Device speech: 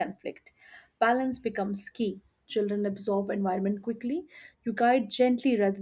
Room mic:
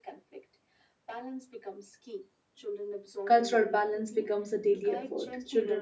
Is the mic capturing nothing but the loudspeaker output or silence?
No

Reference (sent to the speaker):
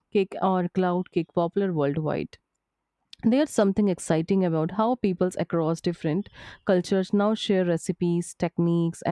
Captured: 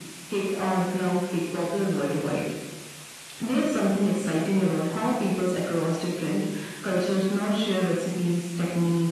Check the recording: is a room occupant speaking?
No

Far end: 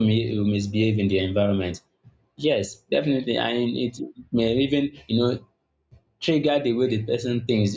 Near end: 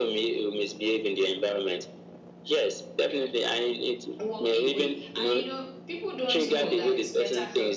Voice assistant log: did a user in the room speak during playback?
Yes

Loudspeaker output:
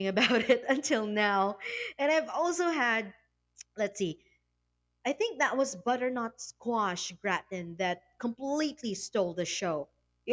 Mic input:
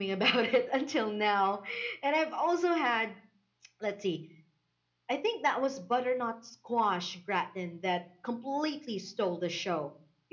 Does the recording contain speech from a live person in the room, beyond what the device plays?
No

